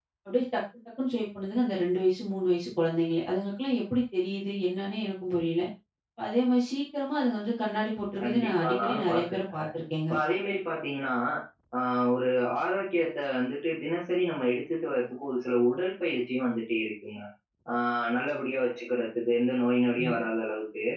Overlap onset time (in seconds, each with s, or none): 8.2 s